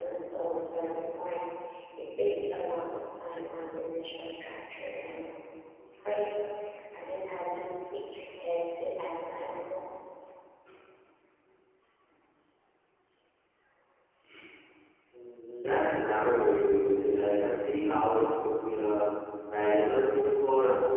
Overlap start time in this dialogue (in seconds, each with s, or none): none